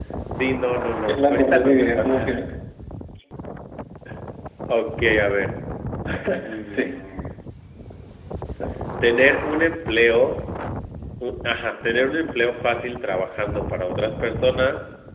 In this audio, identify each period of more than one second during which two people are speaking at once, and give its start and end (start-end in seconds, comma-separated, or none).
0.9-2.3